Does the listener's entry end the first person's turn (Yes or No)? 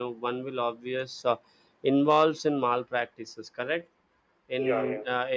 No